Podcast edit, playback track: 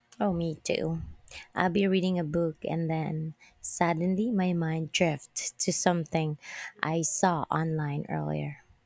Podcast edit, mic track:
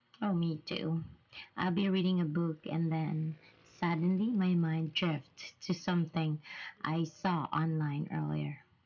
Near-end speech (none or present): none